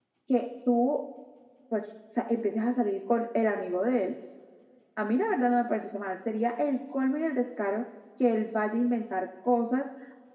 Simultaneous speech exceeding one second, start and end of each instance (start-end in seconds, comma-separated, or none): none